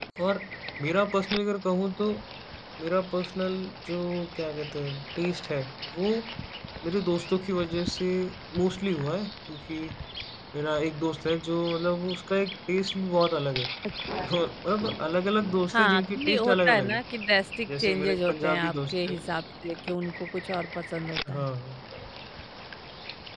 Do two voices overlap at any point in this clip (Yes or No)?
Yes